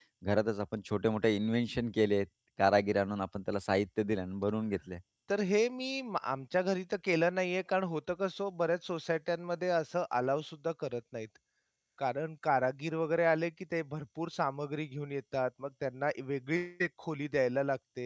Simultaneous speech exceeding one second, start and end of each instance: none

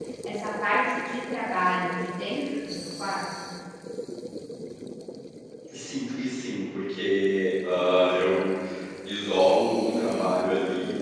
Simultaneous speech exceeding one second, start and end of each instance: none

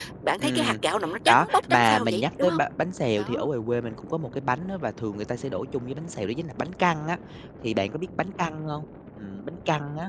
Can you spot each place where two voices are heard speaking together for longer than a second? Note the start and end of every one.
1.3-2.6

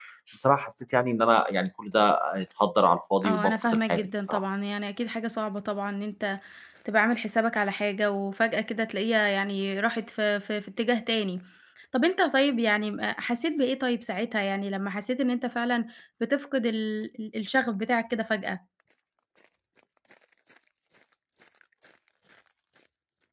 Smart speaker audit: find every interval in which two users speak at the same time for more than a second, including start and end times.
3.2-4.4

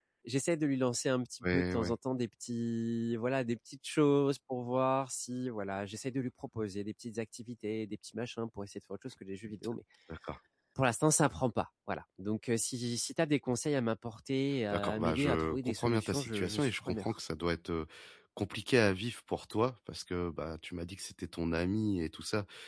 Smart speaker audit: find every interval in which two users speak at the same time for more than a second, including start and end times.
14.7-17.2

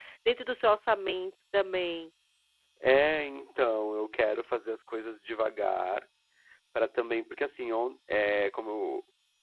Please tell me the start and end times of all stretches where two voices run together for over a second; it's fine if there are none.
none

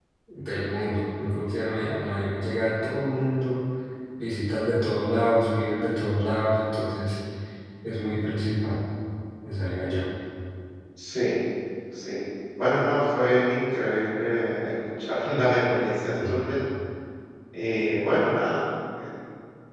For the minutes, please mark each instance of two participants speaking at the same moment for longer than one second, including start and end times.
none

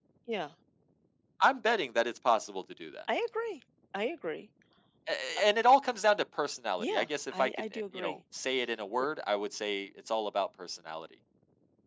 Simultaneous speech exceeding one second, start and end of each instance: 6.8-8.2

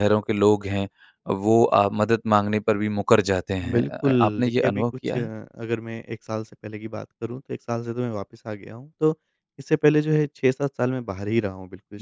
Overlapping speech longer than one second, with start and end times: 3.7-5.3

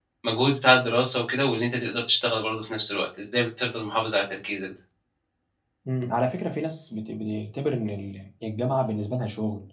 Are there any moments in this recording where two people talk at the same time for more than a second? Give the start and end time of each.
none

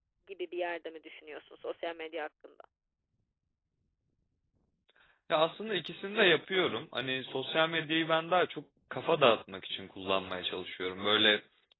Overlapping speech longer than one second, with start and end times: none

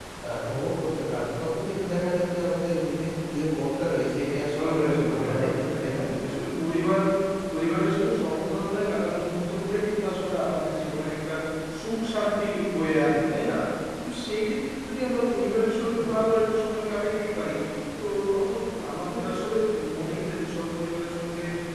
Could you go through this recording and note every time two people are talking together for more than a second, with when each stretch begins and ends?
4.6-6.0

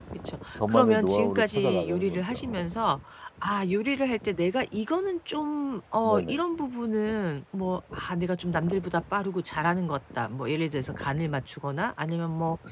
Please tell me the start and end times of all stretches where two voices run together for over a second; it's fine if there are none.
0.7-2.3

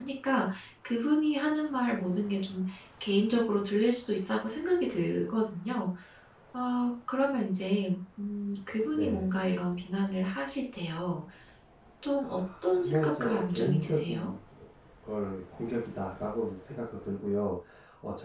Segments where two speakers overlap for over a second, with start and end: 12.2-14.3

